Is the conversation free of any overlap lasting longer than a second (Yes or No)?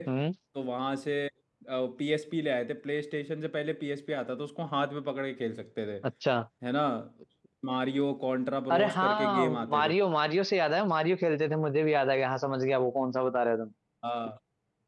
No